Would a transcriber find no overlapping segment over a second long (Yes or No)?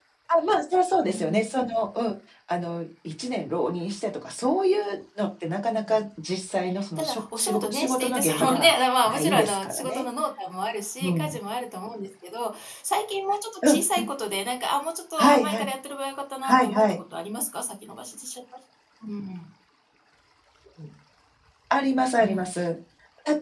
No